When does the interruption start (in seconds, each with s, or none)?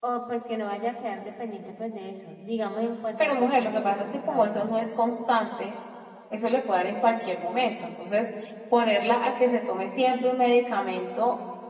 3.2 s